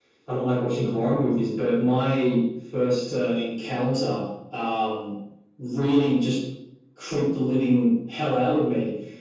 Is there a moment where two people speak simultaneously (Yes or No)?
No